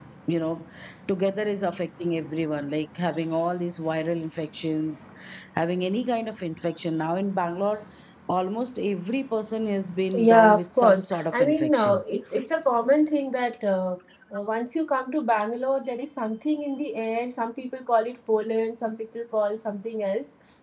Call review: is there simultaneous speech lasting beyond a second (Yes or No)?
Yes